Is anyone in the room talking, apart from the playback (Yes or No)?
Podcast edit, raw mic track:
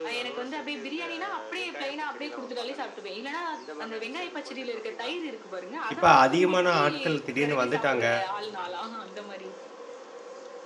Yes